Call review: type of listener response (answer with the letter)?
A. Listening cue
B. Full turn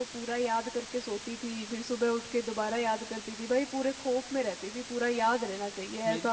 B